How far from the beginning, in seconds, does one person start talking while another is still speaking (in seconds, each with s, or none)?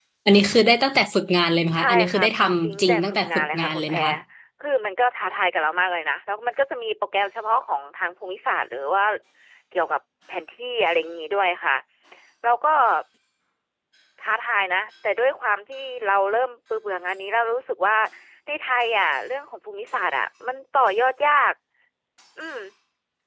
1.7 s